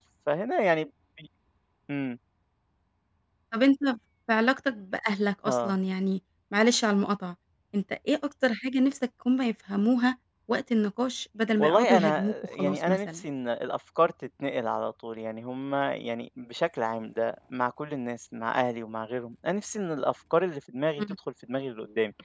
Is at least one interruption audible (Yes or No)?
Yes